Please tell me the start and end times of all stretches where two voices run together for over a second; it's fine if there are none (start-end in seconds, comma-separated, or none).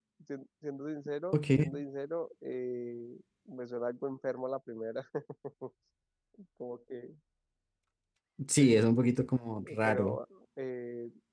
none